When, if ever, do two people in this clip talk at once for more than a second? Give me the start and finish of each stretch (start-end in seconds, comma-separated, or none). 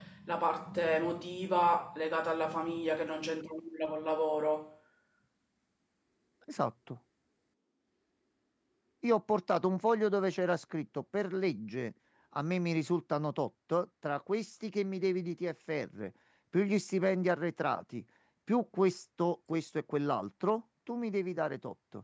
none